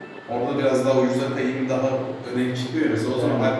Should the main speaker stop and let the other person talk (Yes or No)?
No